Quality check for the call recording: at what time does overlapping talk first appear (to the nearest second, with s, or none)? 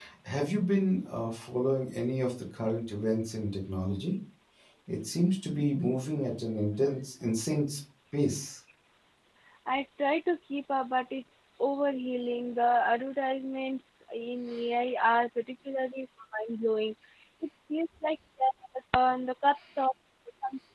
none